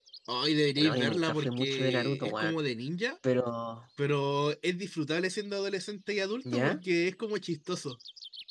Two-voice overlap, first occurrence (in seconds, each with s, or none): 0.8 s